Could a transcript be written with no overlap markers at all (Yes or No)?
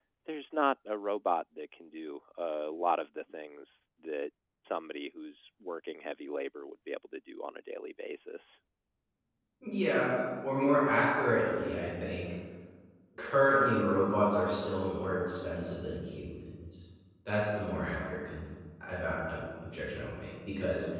Yes